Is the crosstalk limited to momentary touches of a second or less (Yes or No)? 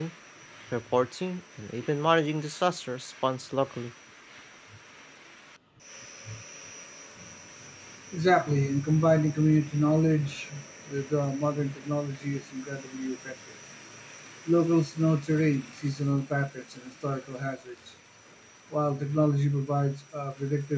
Yes